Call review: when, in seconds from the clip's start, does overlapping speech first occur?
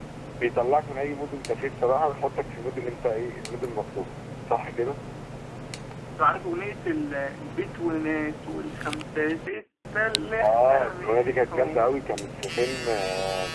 10.4 s

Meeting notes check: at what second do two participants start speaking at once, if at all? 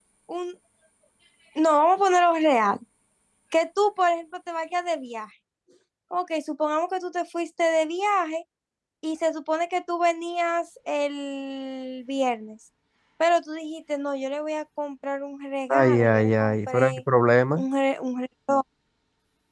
15.7 s

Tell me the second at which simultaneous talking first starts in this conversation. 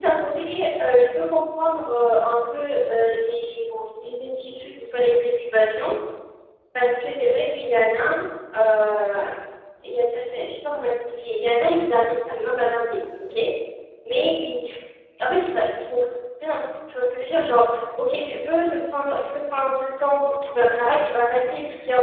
none

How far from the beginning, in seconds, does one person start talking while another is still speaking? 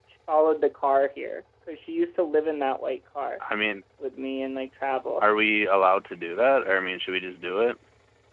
none

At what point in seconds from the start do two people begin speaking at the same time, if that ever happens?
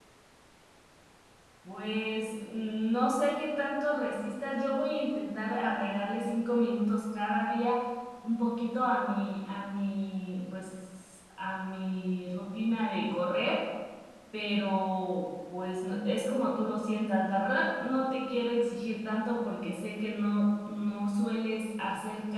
none

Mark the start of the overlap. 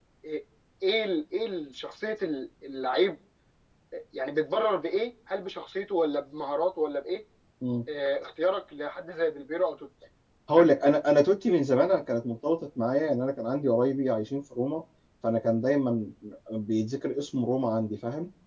none

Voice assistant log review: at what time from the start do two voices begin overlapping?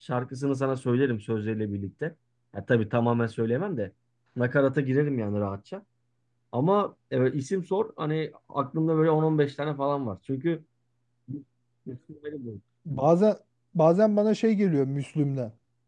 none

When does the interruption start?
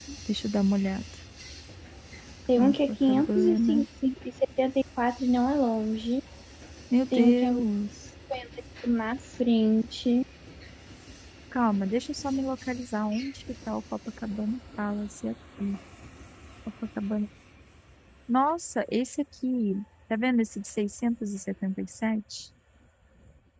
2.5 s

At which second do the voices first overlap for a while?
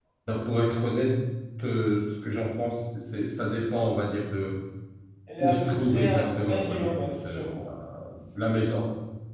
5.4 s

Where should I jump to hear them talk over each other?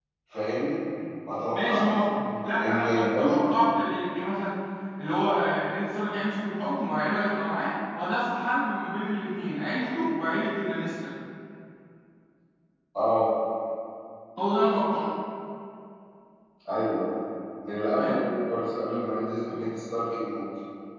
1.5 s

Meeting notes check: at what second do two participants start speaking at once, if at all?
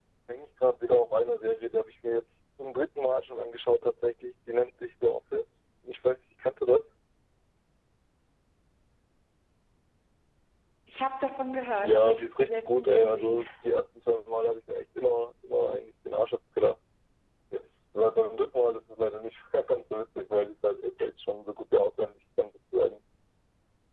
11.8 s

